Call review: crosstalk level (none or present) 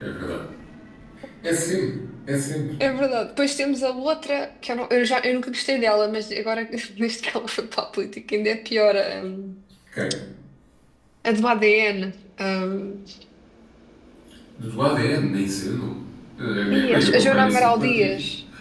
present